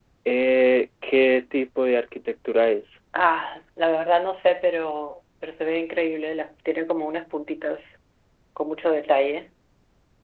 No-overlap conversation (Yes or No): Yes